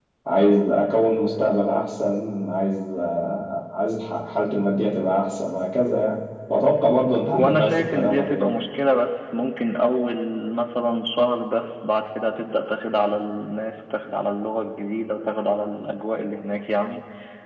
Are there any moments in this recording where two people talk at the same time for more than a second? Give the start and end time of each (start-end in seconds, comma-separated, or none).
7.3-8.5